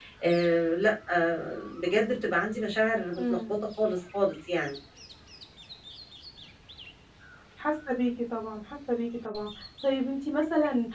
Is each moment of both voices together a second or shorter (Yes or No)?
Yes